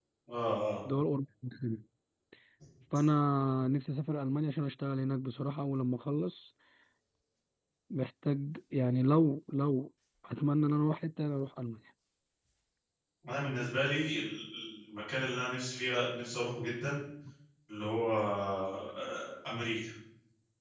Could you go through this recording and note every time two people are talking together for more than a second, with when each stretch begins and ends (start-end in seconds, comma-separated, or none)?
none